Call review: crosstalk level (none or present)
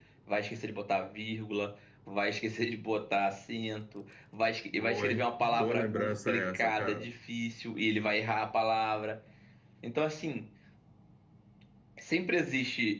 present